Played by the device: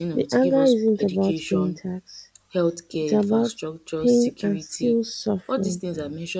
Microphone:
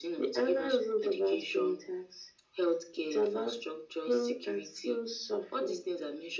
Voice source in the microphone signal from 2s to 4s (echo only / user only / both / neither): echo only